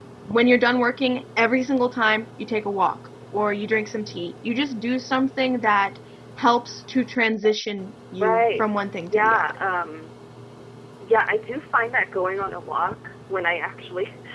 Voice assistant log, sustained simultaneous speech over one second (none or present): present